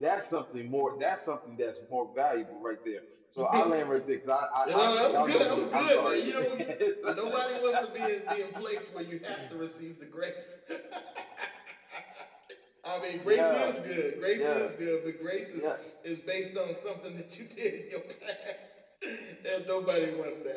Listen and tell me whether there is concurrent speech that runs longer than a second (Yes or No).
Yes